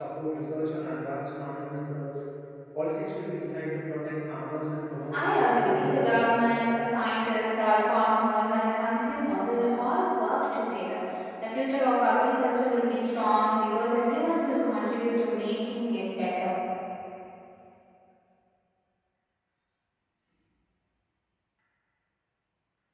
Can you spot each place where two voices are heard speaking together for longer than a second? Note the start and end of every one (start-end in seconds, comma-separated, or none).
5.1-6.4